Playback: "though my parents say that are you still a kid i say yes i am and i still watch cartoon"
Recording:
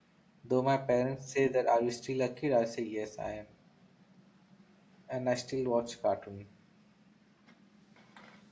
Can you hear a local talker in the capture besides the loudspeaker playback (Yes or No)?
No